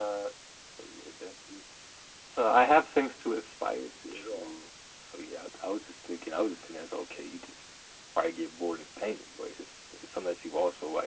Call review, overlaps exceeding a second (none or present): none